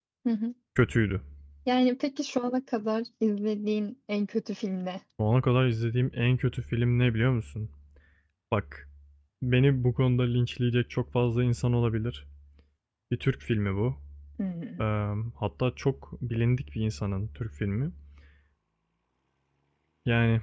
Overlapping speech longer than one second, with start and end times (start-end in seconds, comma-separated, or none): none